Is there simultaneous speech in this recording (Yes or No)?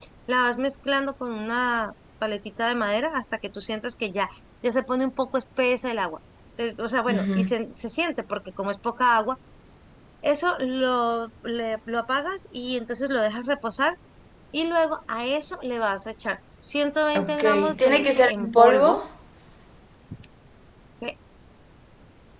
Yes